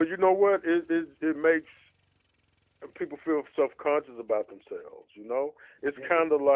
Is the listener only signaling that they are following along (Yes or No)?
Yes